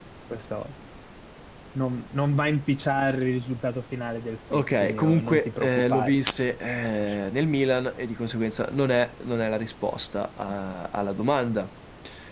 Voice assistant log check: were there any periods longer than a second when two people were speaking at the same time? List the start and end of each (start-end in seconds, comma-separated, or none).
4.5-6.2